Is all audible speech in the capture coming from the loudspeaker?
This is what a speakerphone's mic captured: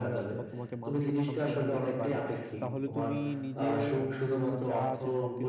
No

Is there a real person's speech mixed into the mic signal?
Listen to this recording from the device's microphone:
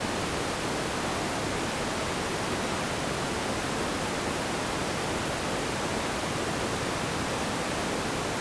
No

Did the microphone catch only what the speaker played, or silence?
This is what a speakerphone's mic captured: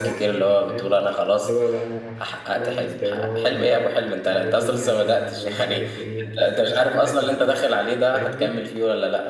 No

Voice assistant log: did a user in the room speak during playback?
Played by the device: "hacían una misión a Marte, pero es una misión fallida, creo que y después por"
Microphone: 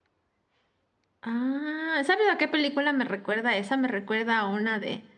Yes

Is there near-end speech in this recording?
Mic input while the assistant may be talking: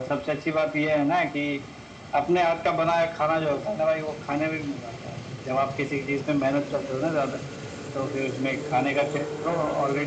No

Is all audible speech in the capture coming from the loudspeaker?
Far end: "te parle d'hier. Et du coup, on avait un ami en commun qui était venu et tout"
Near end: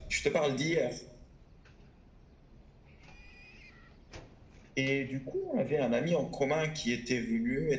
Yes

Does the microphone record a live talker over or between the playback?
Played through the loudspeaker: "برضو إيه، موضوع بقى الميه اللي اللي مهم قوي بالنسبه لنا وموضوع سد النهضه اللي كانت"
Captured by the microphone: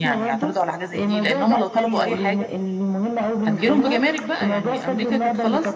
Yes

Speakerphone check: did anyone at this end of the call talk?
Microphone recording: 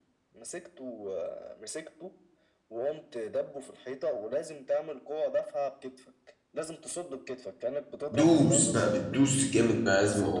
Yes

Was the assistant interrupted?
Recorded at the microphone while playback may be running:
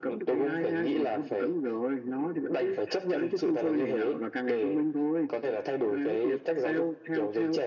No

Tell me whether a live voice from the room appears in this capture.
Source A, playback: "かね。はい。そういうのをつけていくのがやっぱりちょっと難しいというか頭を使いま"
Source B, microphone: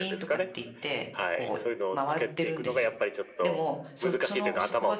Yes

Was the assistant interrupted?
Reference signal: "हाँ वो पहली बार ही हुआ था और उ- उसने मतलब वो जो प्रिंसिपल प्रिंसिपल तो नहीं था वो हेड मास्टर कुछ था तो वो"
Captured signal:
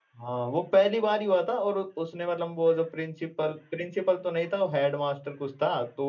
No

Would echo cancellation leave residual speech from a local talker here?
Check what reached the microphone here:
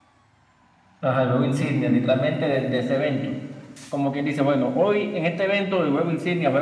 No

